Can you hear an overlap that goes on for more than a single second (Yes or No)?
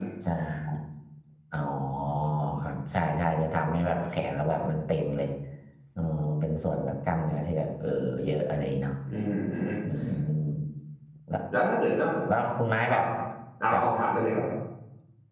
No